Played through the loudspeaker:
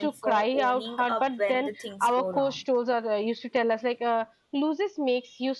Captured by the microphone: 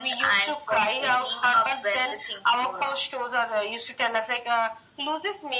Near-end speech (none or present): none